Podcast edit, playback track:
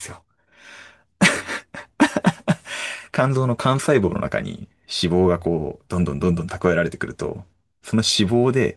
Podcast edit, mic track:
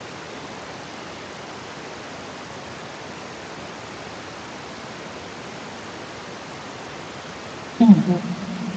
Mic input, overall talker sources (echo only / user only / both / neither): user only